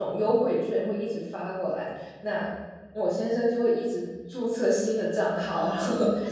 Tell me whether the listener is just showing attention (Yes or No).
No